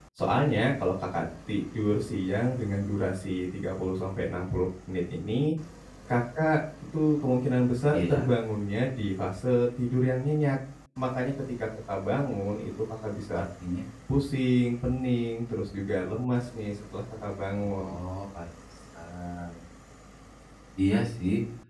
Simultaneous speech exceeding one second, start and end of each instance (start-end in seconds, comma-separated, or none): none